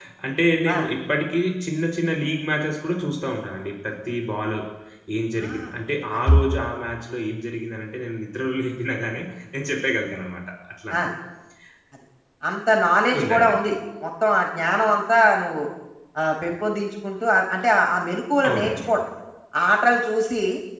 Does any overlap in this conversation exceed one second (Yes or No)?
No